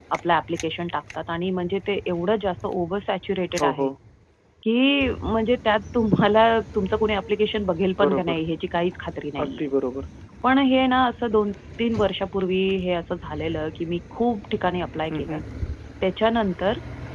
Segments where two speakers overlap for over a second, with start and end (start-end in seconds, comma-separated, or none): none